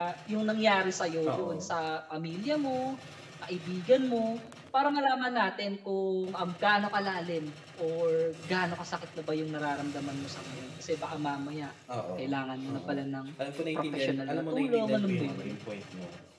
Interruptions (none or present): present